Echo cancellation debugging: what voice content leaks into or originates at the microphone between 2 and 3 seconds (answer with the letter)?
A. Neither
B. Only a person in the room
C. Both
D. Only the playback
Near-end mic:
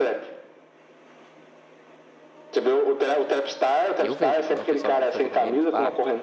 D